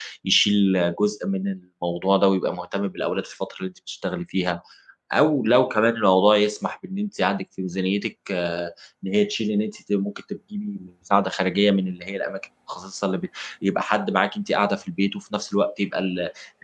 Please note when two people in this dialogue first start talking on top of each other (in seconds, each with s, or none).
none